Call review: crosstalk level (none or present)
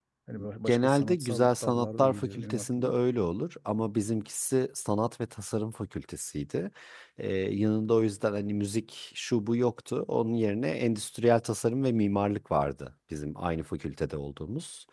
present